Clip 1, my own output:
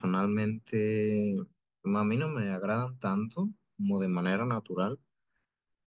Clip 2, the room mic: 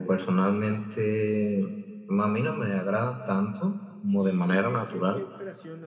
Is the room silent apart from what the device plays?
No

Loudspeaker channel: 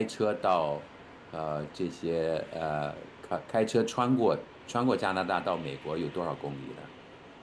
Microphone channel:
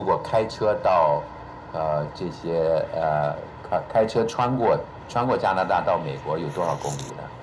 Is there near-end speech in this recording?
No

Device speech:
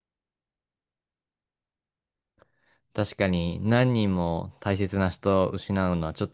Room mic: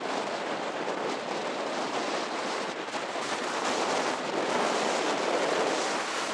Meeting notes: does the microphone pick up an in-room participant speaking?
No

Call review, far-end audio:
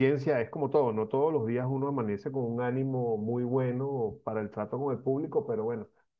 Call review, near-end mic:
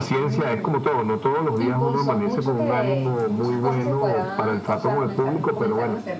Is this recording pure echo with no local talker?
No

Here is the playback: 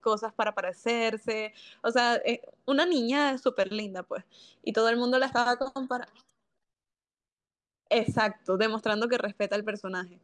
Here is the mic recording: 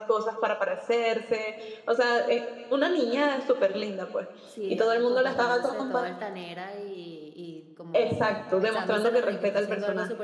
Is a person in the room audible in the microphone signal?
Yes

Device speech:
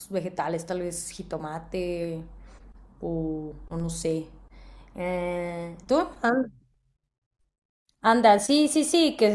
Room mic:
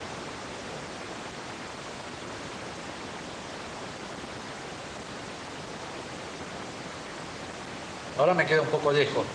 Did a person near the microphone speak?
Yes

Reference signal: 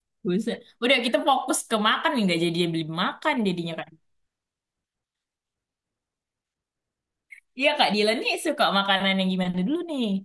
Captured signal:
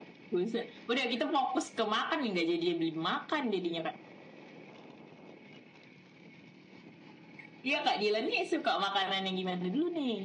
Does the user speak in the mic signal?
No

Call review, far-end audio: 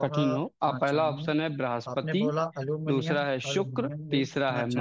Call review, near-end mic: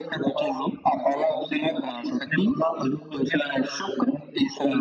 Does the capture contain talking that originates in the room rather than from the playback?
No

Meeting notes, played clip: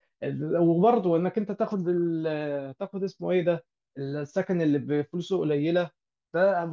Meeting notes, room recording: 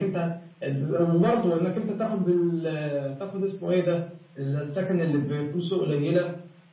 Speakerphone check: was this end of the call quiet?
Yes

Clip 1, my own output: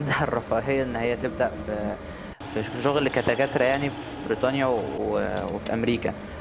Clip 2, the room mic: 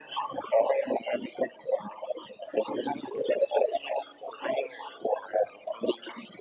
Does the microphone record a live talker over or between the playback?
No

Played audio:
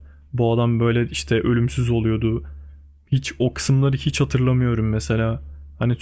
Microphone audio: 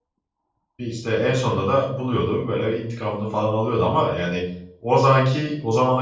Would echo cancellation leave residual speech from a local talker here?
Yes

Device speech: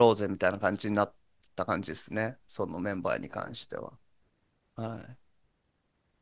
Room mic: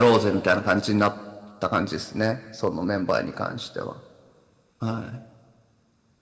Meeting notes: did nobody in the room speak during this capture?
Yes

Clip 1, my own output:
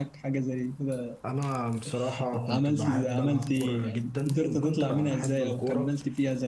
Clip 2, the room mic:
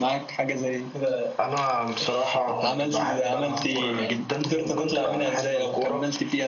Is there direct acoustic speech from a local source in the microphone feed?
No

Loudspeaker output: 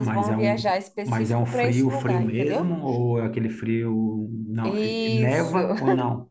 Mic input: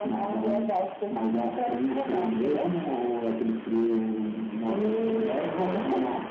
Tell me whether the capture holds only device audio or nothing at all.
Yes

